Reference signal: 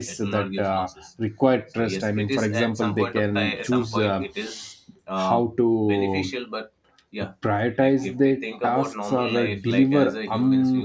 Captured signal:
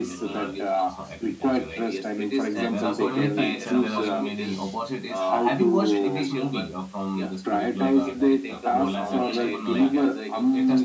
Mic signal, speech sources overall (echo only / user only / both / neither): both